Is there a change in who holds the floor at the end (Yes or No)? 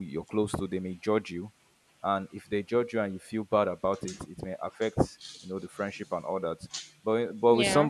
No